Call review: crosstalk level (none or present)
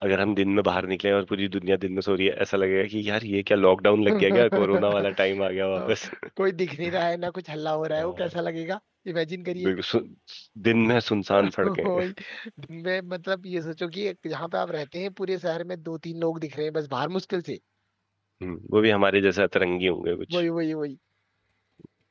present